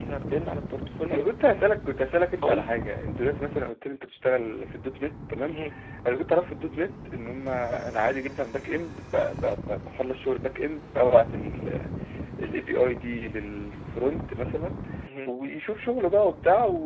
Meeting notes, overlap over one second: none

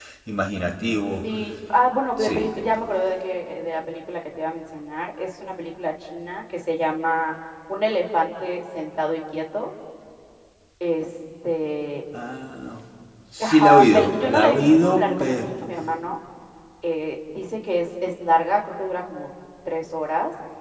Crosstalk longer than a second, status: present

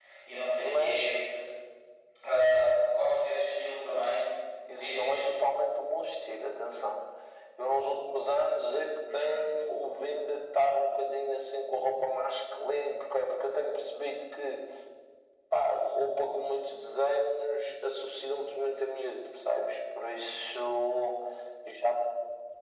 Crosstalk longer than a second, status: none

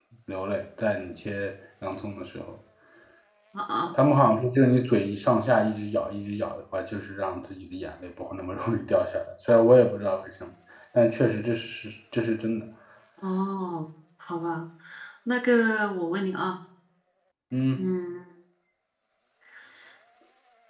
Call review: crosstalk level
none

